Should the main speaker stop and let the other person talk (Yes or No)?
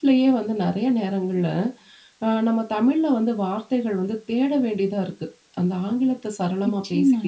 Yes